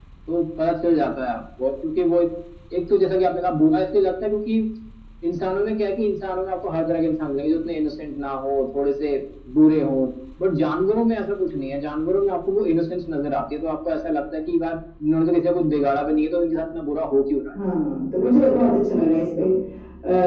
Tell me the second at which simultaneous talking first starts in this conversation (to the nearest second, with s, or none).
none